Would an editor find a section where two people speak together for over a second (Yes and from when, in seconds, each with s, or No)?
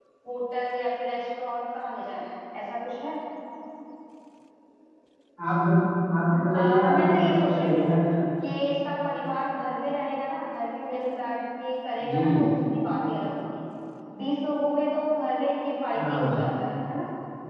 Yes, from 6.5 s